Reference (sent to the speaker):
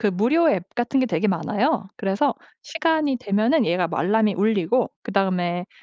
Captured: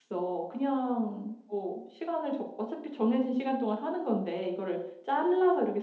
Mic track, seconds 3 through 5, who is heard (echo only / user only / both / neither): user only